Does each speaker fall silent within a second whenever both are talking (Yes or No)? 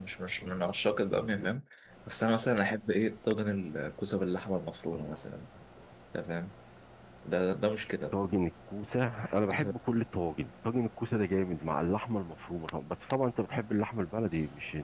Yes